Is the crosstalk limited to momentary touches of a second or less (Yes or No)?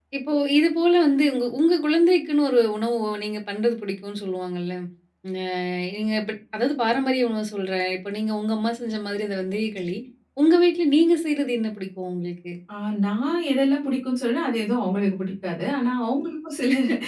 Yes